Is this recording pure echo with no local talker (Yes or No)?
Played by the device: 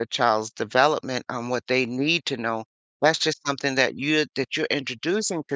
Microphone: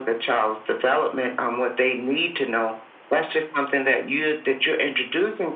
Yes